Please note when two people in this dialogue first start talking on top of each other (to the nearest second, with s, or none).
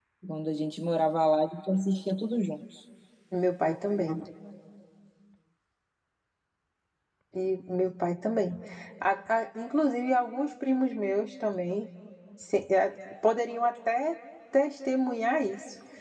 none